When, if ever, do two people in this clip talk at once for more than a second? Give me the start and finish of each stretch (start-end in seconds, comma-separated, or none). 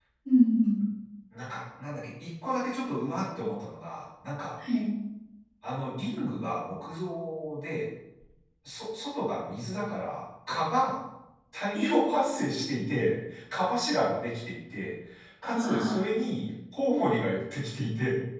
none